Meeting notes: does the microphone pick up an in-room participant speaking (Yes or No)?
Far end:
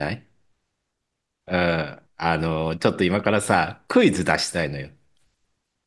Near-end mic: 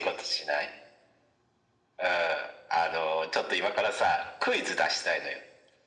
No